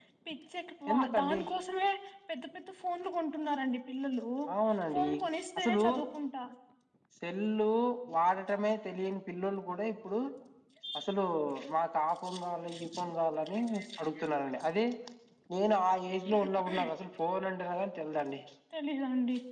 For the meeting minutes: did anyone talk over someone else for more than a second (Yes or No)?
No